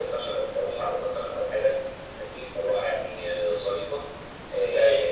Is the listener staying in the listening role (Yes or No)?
Yes